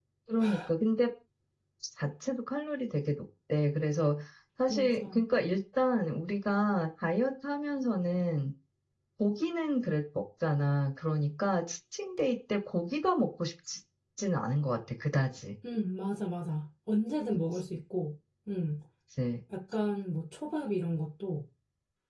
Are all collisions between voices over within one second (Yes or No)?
Yes